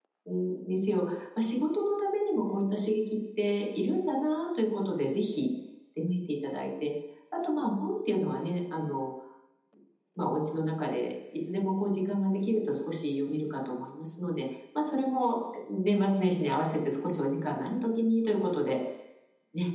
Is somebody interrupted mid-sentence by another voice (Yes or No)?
No